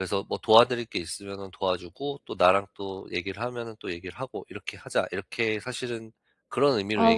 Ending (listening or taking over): taking over